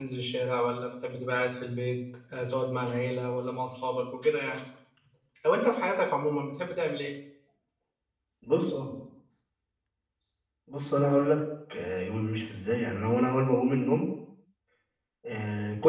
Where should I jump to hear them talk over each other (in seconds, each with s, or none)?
none